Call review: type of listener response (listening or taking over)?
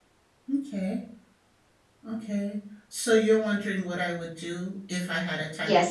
taking over